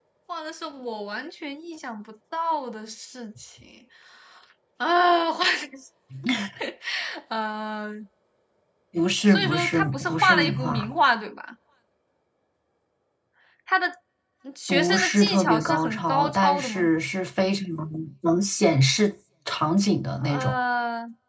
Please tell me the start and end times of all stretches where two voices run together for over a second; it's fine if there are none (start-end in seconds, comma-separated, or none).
9.3-10.9, 14.7-16.8